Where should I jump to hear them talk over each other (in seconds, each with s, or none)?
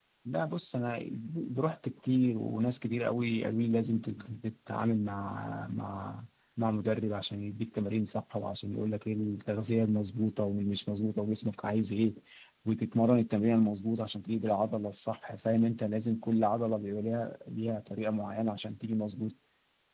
none